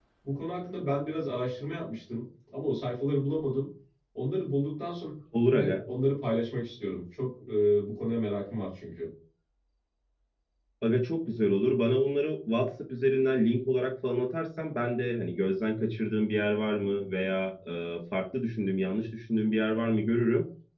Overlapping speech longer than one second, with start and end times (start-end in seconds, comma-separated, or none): none